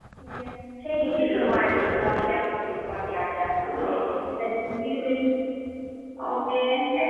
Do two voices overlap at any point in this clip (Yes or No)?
Yes